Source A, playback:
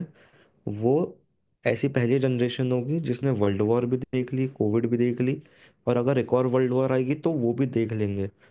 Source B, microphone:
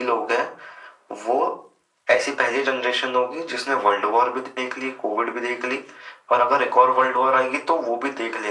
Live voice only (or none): none